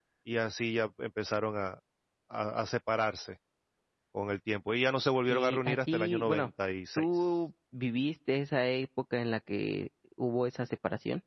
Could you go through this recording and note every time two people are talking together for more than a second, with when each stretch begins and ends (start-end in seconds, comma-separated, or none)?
5.3-6.5